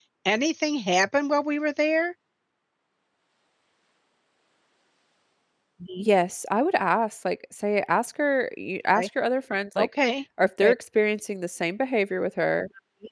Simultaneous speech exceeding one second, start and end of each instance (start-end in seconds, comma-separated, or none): none